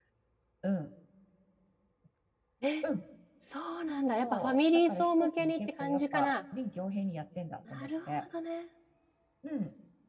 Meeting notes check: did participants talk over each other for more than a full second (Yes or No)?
Yes